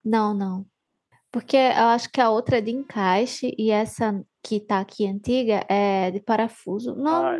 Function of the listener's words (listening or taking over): taking over